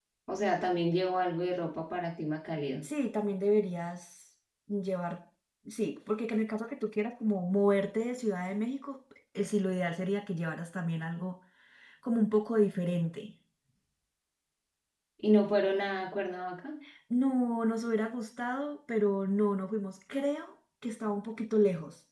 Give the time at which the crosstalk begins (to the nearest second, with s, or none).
none